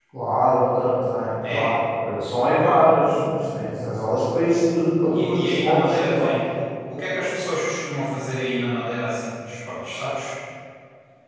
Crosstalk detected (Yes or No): Yes